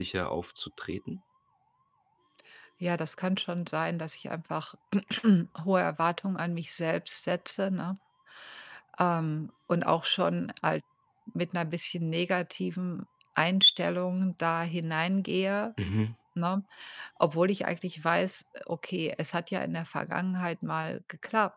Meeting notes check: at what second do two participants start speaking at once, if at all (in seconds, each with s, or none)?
none